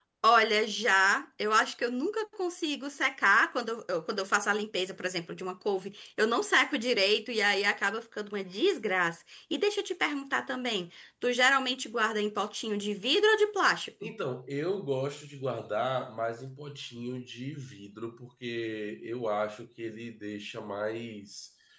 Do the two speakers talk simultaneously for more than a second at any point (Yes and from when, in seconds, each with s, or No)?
No